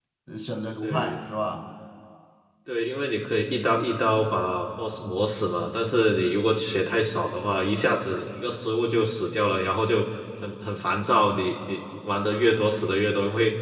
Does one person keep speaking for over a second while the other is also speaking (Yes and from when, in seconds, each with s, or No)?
No